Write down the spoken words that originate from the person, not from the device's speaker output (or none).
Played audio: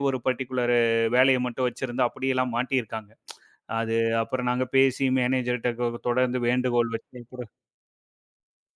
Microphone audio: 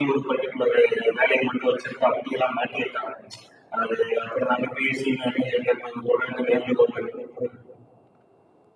none